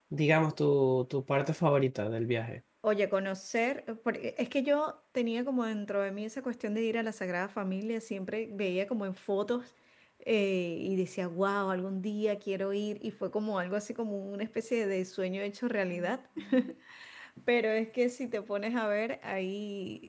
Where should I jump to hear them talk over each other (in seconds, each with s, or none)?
none